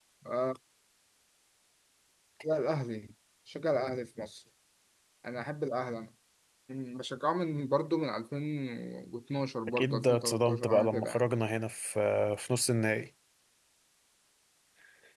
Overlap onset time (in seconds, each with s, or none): 9.7 s